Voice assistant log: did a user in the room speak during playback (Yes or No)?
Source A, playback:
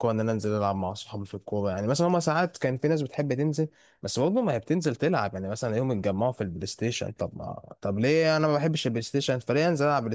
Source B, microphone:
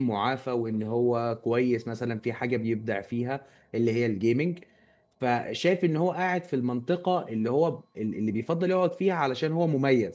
Yes